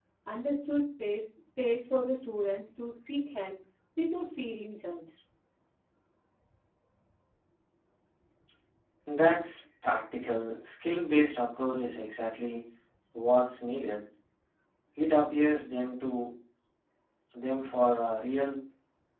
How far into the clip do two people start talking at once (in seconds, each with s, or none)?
none